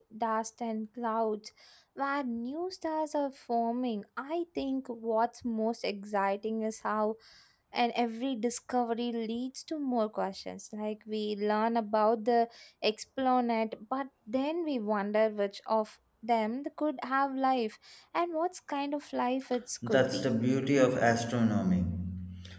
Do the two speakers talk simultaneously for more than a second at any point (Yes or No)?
No